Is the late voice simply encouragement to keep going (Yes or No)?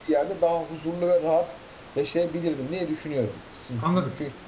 Yes